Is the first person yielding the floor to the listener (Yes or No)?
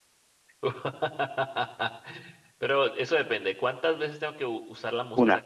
No